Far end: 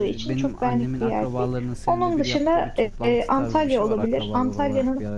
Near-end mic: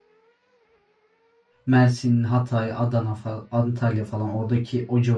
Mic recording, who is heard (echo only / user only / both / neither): user only